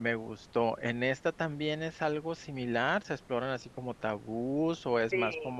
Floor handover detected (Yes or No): Yes